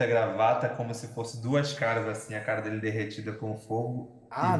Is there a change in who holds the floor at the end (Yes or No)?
Yes